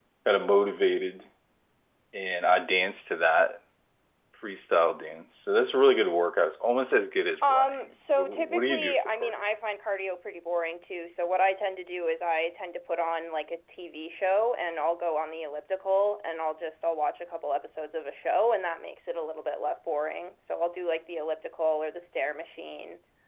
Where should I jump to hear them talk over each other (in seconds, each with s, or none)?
7.4 s